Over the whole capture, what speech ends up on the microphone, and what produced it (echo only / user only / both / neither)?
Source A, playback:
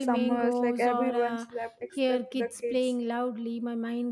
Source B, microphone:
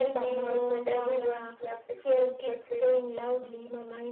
echo only